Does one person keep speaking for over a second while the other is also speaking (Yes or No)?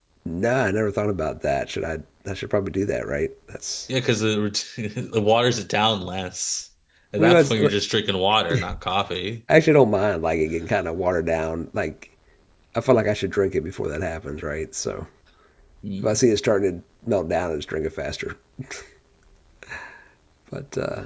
No